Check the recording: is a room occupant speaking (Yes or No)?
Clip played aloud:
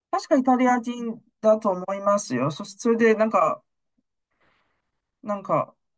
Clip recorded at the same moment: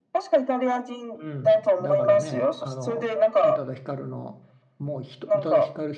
Yes